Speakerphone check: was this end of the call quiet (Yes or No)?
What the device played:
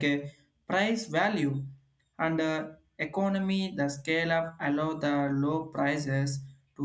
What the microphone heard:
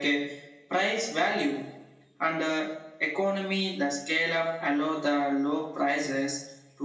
Yes